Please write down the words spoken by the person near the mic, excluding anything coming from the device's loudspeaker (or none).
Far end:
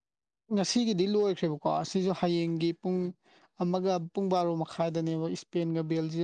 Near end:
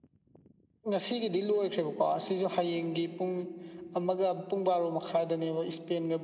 none